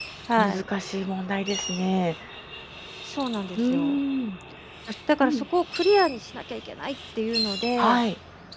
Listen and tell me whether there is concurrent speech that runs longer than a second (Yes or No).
No